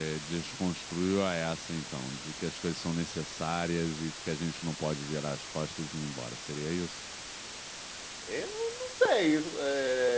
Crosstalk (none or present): none